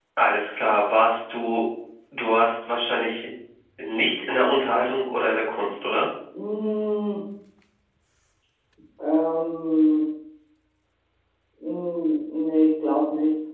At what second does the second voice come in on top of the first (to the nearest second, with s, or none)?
none